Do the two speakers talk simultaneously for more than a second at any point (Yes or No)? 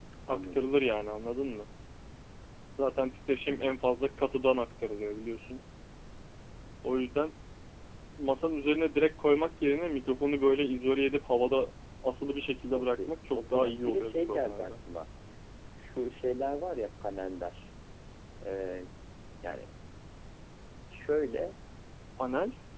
Yes